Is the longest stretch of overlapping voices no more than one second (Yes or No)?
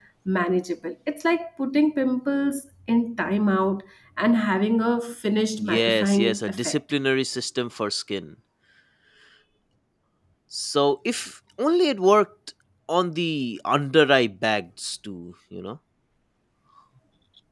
No